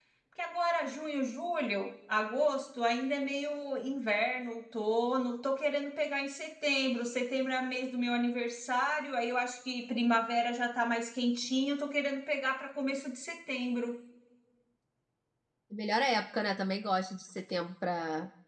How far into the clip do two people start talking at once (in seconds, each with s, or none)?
none